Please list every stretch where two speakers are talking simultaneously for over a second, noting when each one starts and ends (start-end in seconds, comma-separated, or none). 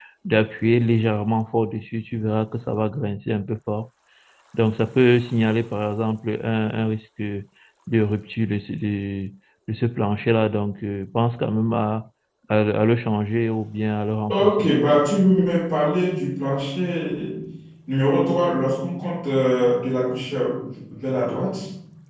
none